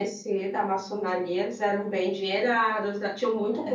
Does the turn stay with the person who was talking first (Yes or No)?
Yes